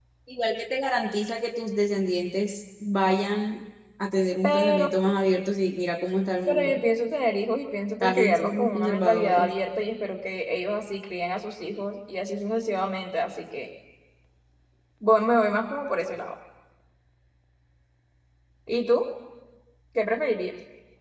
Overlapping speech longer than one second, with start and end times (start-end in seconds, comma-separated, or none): 8.0-9.5